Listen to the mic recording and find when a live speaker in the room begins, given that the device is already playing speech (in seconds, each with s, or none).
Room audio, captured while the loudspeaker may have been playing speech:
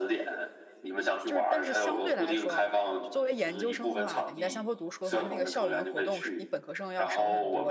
1.2 s